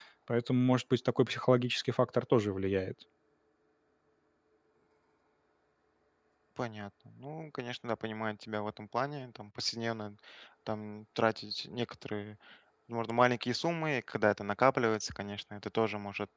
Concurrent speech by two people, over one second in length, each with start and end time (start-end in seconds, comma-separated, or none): none